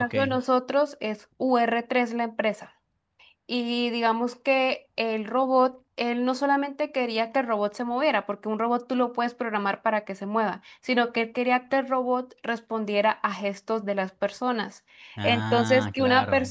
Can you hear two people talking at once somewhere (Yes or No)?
Yes